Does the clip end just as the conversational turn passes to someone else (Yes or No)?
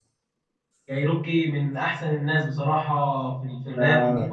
Yes